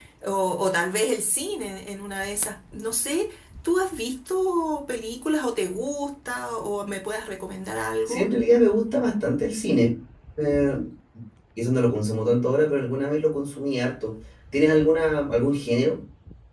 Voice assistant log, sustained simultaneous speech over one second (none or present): none